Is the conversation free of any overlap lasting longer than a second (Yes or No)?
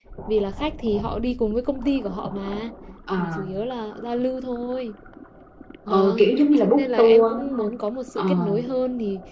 No